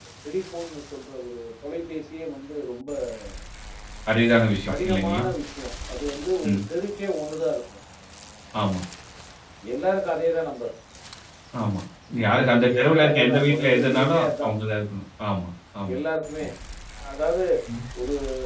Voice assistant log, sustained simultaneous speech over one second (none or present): present